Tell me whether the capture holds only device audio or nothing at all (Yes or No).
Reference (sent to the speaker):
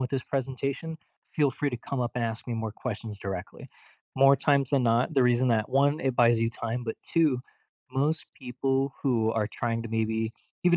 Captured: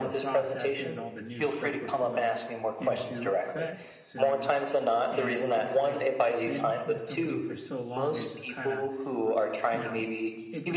No